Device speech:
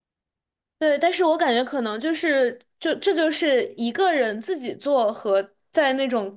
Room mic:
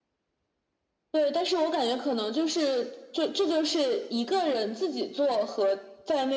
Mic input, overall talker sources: echo only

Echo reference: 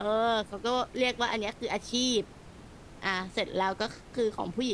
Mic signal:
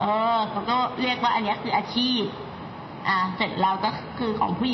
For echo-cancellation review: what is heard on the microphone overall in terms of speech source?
echo only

